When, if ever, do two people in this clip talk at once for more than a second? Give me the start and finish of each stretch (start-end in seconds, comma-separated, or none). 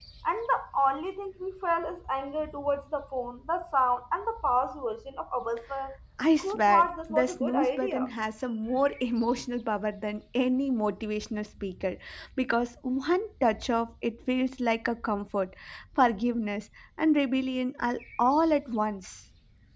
6.4-8.1